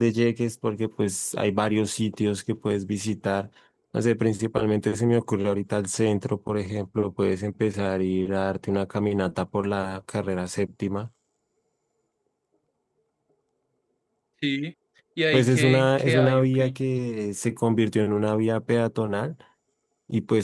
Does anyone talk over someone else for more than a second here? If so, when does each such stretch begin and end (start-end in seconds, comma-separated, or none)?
15.3-16.6